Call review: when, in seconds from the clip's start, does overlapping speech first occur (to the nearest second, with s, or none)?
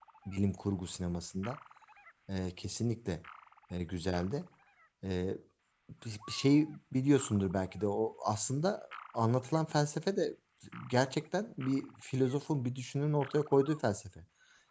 none